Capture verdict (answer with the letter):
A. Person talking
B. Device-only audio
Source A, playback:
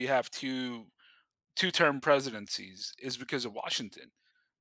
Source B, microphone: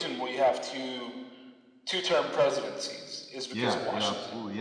A